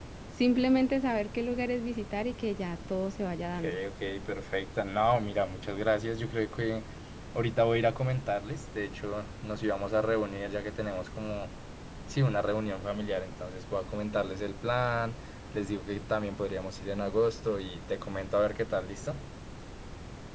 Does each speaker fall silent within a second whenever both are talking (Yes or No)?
Yes